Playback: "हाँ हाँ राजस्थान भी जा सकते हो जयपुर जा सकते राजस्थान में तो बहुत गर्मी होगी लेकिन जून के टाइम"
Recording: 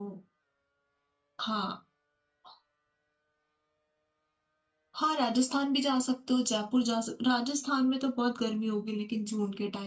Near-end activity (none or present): none